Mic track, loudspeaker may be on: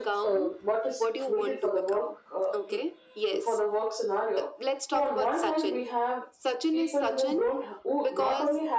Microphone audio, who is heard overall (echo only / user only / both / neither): echo only